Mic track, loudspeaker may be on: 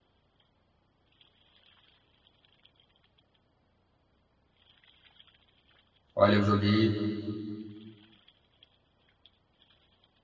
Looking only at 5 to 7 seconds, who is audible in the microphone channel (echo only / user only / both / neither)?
user only